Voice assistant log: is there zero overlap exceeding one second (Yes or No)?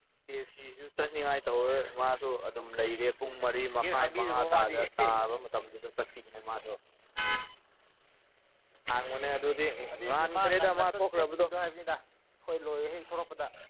No